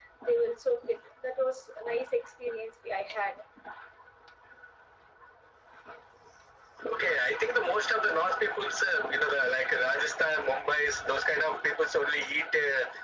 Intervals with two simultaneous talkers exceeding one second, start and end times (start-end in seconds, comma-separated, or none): none